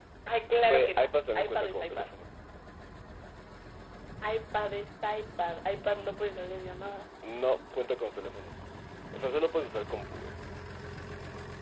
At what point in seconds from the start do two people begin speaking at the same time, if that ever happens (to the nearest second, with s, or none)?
1 s